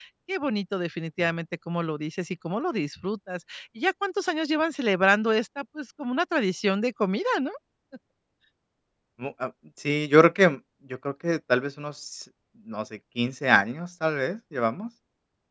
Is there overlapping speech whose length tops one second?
No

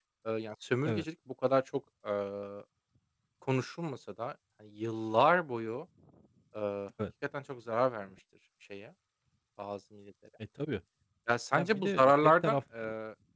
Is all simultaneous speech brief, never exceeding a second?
No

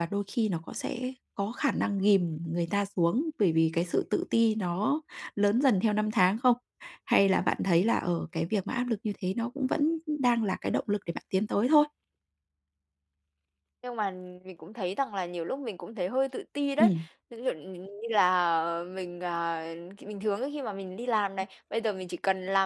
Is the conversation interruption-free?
Yes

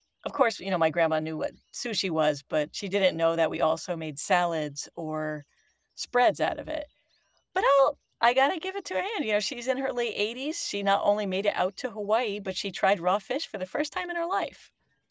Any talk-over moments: No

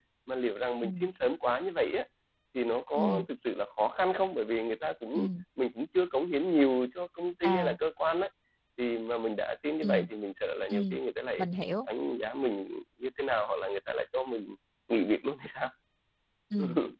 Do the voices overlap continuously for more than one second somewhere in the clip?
No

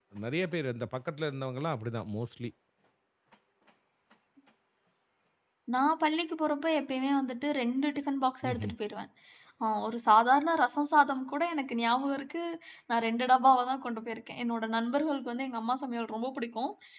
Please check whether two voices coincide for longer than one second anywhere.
No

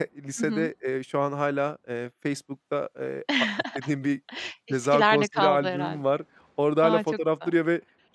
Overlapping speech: Yes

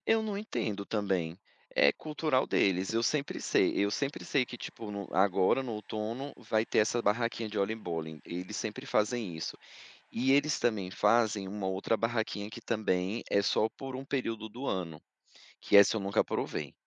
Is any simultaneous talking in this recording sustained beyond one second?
No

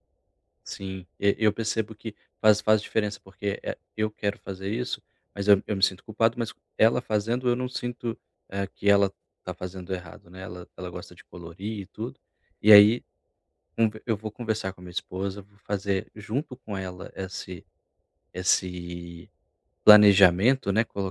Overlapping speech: No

